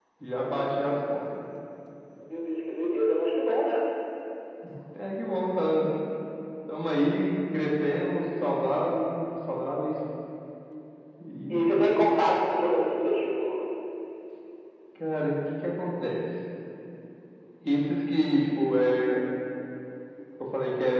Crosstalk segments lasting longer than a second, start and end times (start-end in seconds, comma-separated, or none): none